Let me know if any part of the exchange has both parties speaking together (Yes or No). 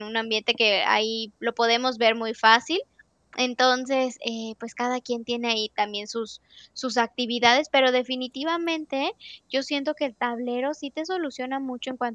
No